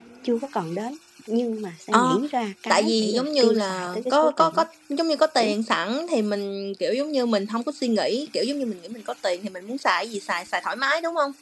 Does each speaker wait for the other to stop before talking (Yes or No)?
No